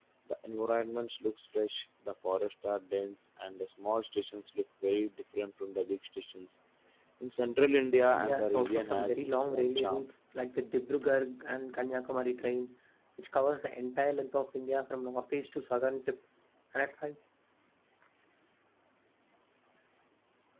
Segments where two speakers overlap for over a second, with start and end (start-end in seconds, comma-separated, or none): 8.1-10.1